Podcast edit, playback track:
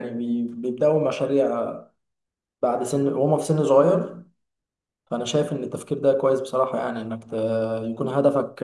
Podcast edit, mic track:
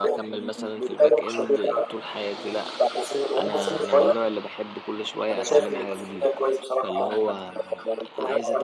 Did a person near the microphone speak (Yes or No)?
Yes